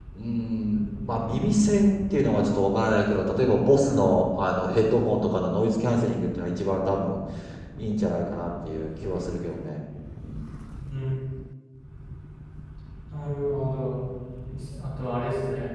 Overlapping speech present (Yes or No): No